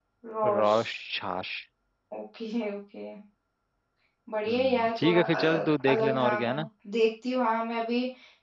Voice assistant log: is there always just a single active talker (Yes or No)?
No